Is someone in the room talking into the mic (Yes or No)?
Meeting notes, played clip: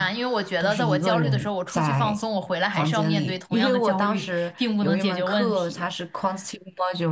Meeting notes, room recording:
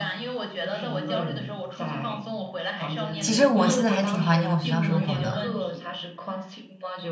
Yes